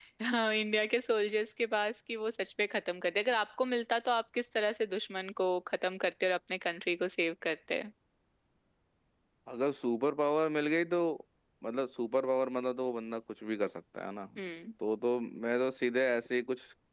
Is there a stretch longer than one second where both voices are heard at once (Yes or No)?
No